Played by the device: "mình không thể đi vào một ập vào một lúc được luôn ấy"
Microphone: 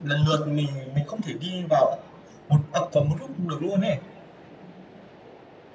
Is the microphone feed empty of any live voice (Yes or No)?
Yes